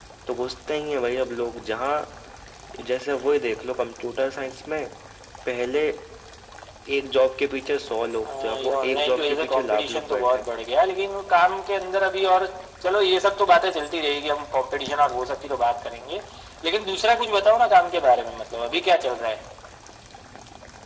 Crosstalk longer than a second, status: present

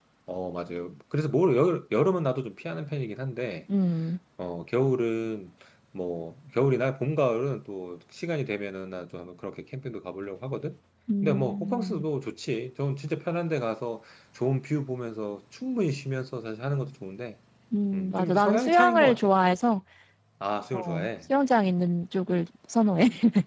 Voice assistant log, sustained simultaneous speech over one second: present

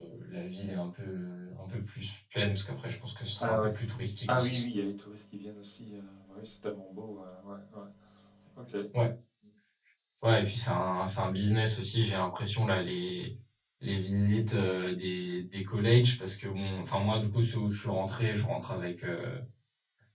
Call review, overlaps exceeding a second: none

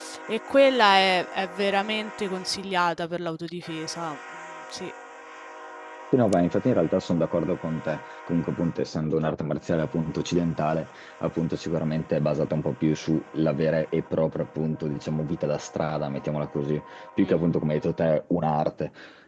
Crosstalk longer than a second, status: none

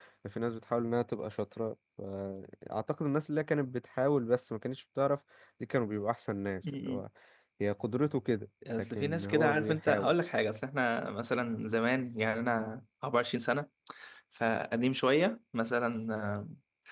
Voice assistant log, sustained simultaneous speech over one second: present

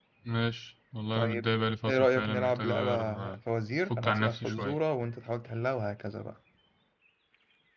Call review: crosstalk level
present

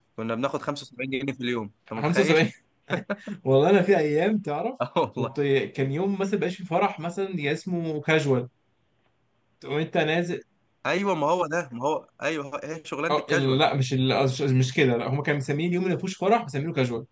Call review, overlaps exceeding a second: none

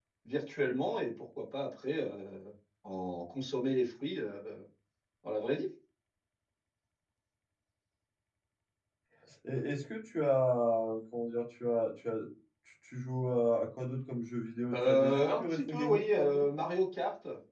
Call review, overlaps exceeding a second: present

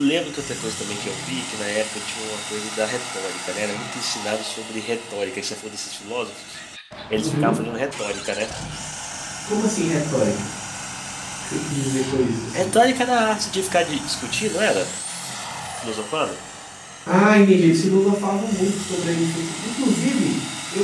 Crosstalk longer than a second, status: none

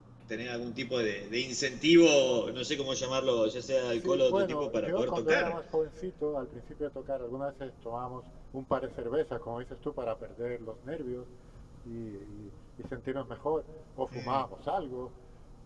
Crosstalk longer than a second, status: present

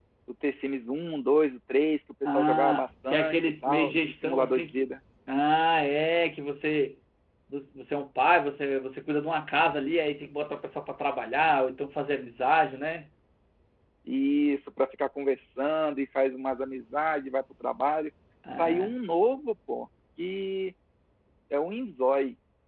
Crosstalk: present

